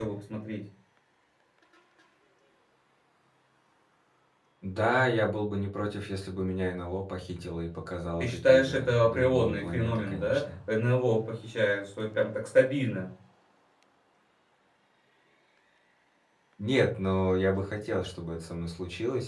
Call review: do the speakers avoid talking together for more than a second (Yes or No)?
No